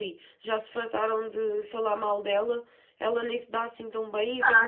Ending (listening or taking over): taking over